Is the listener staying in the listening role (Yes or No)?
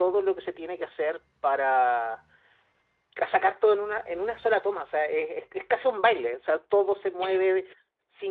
Yes